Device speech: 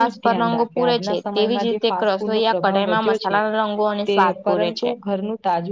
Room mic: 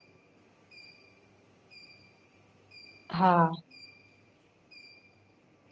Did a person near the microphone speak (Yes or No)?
Yes